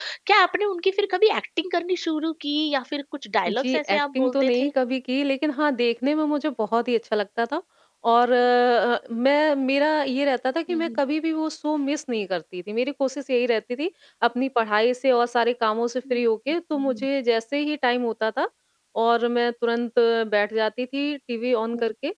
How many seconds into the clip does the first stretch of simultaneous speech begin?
3.5 s

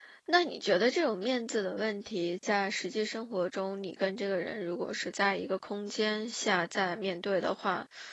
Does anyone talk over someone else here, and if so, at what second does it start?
none

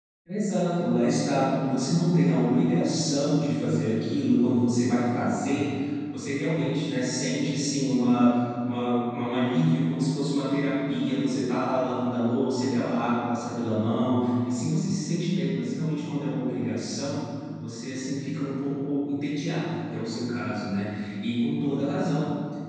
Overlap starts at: none

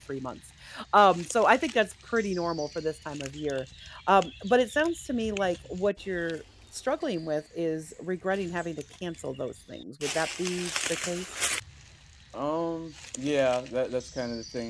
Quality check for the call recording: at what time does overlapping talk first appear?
none

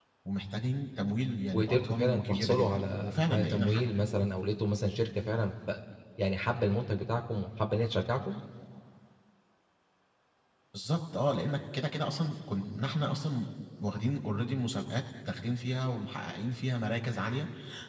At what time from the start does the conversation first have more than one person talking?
1.5 s

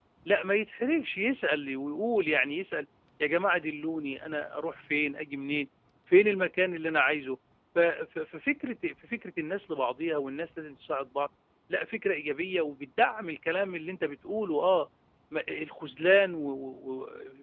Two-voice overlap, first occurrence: none

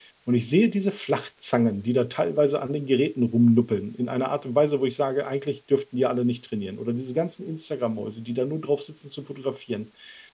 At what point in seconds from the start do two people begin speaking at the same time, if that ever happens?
none

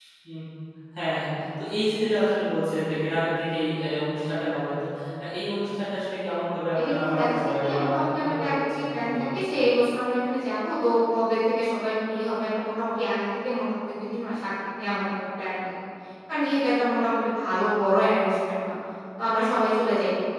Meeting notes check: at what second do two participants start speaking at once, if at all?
6.8 s

